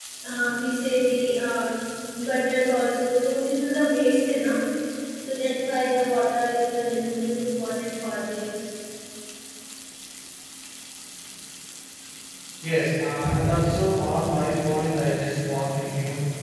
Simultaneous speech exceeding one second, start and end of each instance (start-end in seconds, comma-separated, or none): none